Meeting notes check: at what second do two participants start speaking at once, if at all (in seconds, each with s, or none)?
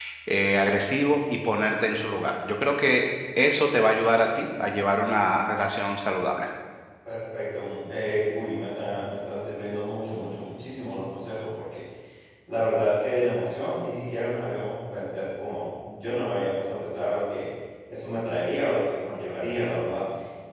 none